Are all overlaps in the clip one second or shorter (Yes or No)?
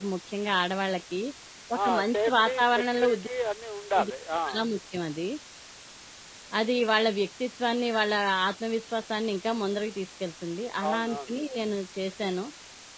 No